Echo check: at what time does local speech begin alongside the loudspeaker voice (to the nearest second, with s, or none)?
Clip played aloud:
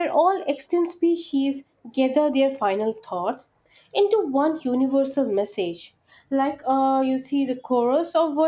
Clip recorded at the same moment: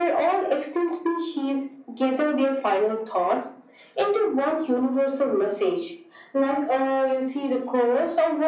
none